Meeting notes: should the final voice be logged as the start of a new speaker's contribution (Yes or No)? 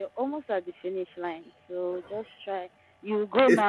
No